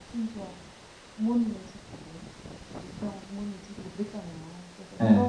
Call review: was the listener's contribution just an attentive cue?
Yes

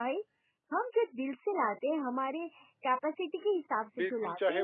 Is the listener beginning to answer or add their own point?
Yes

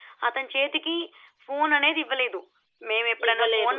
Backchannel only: Yes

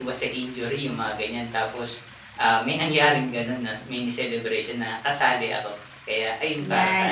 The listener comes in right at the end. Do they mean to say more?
Yes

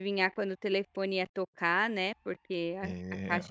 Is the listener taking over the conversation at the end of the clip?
No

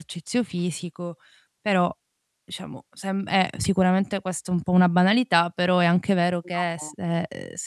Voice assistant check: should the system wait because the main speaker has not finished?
Yes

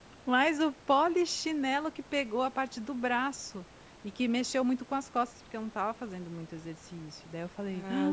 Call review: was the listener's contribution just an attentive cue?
No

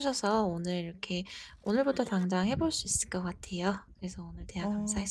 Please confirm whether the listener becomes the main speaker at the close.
Yes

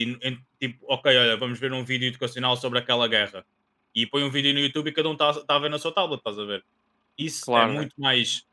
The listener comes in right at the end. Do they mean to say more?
No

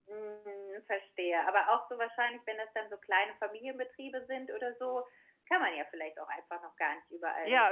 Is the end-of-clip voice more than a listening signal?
Yes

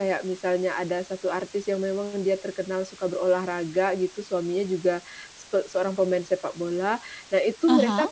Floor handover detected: No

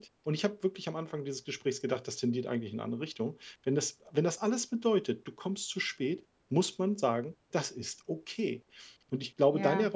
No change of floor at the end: Yes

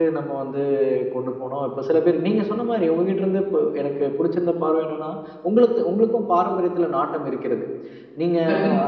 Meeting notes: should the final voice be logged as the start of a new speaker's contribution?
No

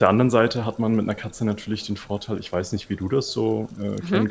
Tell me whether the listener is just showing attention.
Yes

